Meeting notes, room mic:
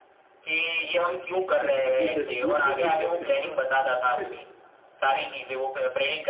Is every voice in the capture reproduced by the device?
No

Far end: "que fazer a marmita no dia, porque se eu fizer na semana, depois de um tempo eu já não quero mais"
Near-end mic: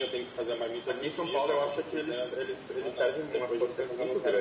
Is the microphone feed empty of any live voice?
No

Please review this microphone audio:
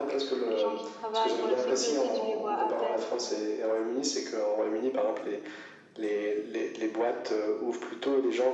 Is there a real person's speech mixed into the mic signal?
Yes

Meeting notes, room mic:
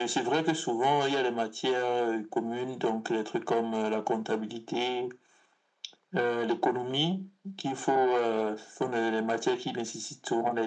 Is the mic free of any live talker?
Yes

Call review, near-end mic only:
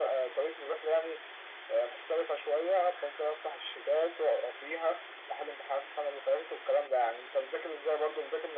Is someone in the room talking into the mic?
No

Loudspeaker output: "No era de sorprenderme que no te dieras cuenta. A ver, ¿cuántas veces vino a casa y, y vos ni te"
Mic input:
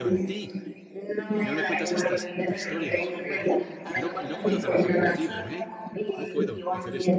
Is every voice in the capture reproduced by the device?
No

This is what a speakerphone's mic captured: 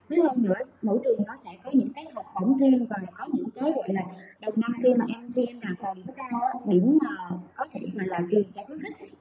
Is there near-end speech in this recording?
No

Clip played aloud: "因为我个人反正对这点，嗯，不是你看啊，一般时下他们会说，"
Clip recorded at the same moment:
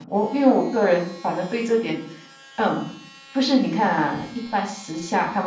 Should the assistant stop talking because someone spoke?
No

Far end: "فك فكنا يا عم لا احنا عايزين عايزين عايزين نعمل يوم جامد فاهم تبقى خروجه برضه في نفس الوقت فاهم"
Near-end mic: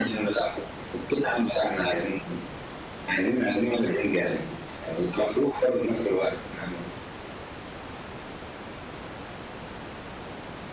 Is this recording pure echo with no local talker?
Yes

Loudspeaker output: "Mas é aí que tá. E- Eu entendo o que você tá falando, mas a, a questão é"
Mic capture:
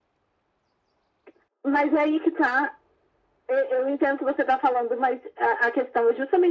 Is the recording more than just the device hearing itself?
No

